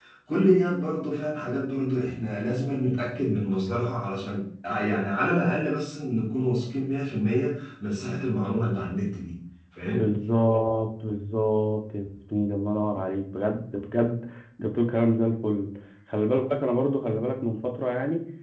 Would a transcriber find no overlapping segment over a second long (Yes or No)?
Yes